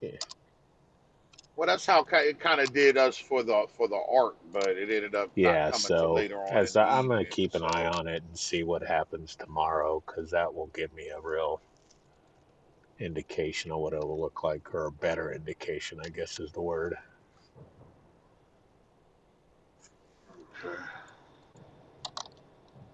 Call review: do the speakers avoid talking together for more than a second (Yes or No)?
No